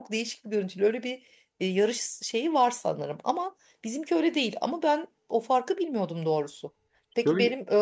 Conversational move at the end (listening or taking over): listening